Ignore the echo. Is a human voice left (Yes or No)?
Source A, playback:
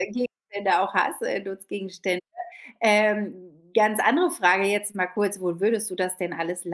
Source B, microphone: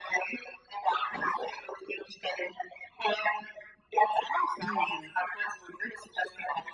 Yes